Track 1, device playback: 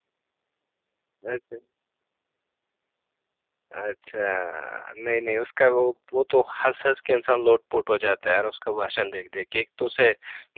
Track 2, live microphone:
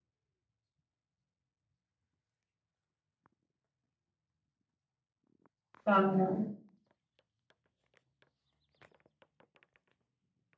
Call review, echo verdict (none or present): none